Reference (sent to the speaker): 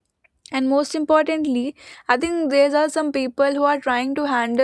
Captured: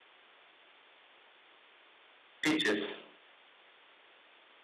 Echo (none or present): none